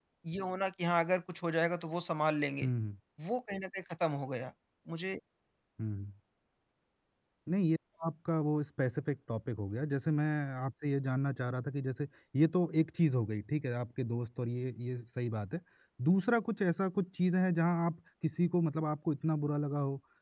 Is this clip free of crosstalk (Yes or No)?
Yes